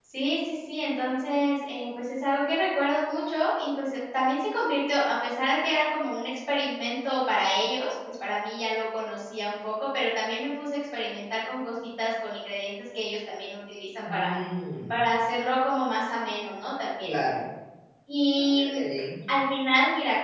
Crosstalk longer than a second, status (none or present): none